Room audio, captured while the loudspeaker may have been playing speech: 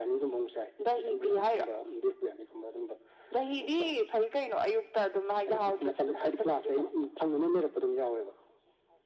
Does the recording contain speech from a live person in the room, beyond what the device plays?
No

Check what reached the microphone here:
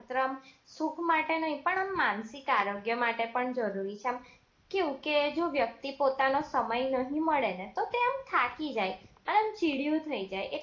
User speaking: Yes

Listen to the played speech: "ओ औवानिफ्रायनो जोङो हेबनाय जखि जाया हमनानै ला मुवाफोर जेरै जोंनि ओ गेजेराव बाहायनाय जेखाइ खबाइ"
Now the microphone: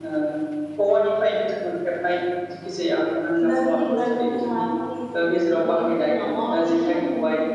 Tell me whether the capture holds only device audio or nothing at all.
No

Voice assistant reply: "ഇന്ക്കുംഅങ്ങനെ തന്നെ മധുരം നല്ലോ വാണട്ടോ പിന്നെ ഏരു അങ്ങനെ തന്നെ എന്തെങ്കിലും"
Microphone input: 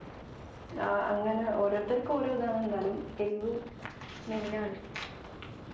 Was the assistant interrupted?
Yes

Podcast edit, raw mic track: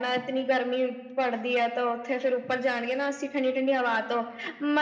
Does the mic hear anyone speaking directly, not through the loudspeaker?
No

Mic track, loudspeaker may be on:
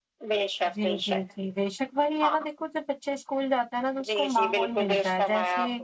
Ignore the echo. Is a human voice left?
Yes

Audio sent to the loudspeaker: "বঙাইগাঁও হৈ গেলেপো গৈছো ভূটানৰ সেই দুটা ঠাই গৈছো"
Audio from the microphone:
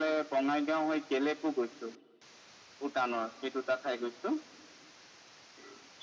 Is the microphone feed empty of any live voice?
Yes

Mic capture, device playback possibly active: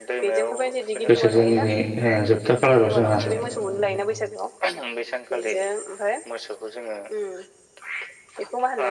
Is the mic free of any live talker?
No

